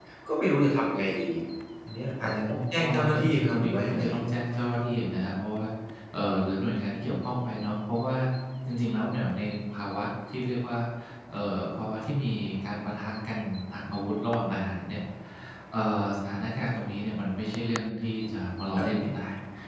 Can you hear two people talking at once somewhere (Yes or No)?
Yes